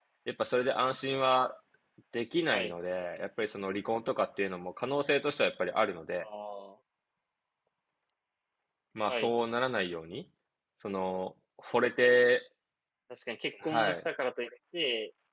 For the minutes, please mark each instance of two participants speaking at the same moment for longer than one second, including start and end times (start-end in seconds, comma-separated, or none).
none